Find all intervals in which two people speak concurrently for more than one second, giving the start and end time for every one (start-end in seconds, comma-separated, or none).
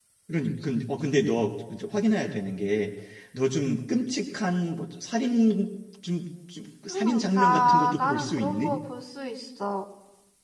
6.9-8.7